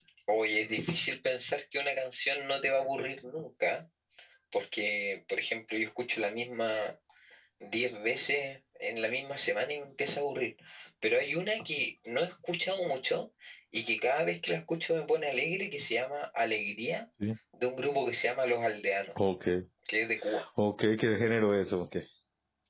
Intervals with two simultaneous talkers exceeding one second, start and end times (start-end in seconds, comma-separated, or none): none